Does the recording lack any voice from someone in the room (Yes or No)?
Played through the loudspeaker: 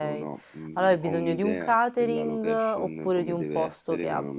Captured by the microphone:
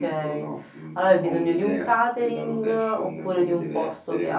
Yes